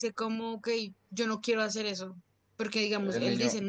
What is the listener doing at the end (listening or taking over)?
listening